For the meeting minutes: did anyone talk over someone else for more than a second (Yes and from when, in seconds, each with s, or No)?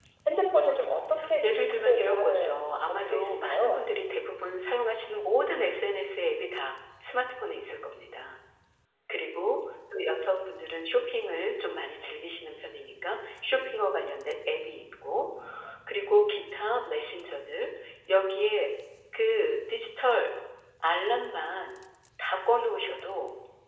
Yes, from 1.4 s